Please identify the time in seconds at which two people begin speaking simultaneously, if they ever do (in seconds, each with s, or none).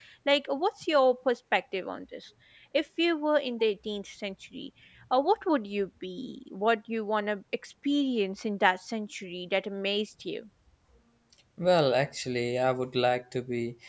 none